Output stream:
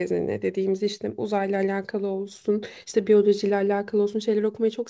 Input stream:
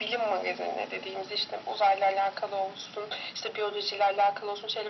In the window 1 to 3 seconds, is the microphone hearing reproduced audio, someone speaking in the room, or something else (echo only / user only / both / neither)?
echo only